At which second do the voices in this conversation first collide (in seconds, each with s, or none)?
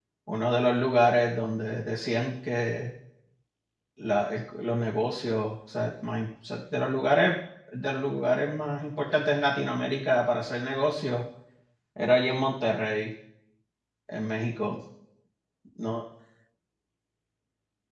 none